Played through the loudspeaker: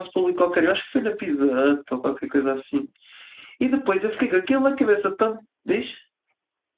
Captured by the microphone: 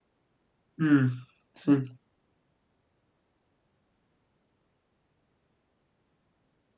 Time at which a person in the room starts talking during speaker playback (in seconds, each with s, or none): 0.8 s